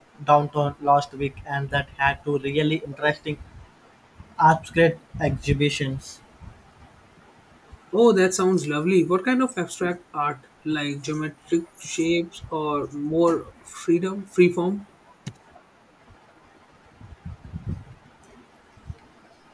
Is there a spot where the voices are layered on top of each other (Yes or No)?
No